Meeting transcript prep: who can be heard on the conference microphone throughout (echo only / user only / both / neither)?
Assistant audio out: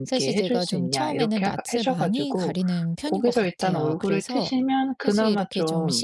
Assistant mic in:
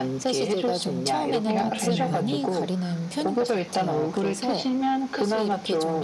both